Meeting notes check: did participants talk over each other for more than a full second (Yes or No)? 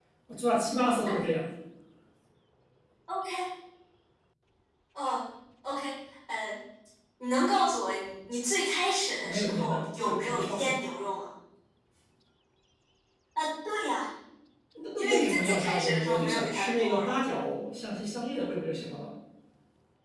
Yes